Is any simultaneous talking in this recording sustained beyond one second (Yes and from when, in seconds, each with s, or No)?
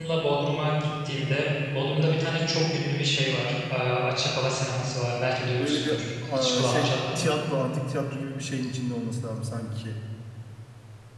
Yes, from 5.6 s